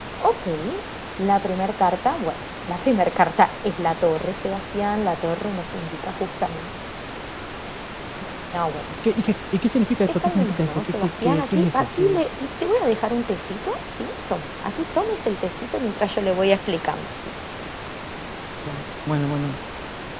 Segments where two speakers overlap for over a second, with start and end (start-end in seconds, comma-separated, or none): 10.1-12.2